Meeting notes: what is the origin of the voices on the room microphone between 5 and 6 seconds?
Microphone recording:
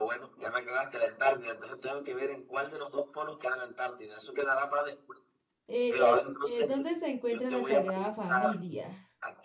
both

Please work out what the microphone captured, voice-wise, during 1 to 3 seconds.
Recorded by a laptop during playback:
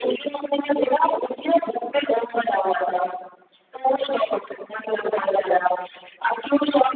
echo only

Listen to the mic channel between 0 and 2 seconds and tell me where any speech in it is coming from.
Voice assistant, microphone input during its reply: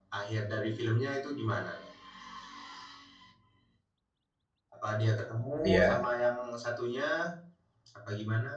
echo only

